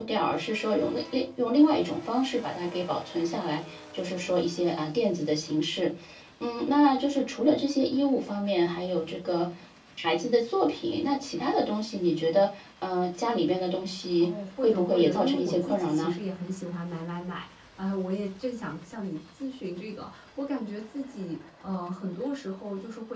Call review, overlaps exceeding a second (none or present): present